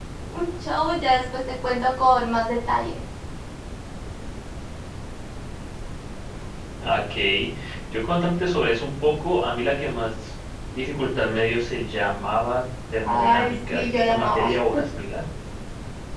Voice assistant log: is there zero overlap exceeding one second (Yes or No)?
No